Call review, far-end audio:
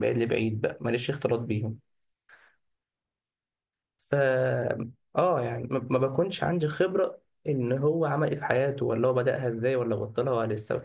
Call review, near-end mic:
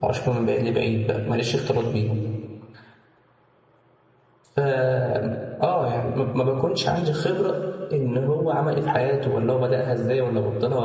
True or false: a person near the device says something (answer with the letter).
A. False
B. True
A